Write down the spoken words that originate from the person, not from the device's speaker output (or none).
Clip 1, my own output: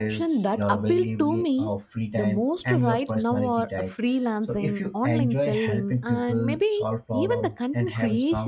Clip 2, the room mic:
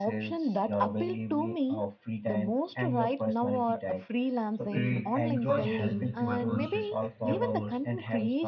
great because it doesn't require constant active hours.